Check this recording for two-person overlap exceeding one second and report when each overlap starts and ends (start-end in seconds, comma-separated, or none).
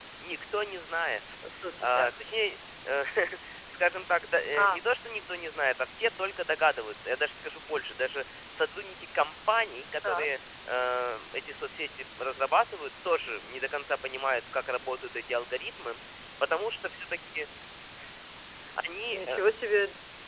none